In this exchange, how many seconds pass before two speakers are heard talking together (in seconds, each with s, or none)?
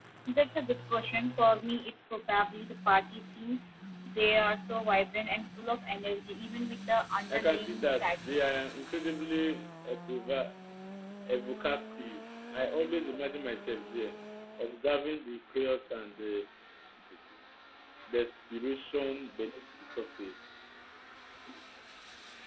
7.3 s